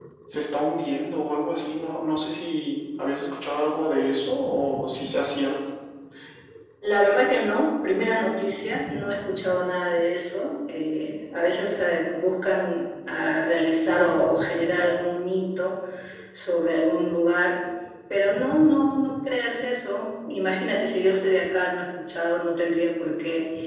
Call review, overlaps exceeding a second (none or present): none